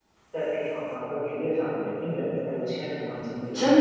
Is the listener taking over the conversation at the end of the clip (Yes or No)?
Yes